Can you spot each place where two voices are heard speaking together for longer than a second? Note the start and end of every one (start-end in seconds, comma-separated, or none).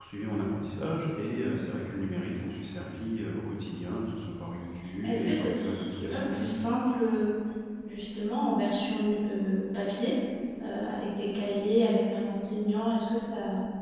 5.0-6.5